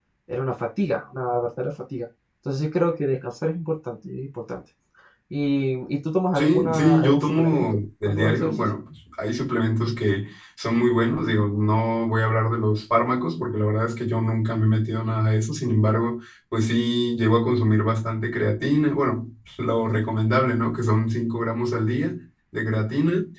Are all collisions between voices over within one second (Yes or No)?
No